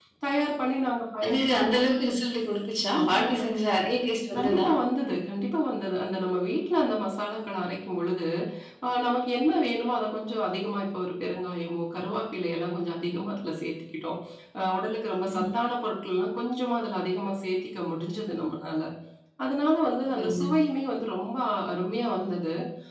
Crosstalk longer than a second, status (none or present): none